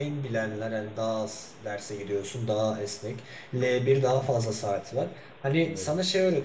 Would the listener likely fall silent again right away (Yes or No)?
Yes